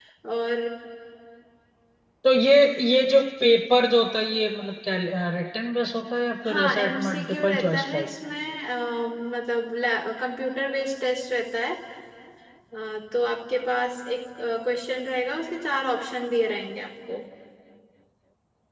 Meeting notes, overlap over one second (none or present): present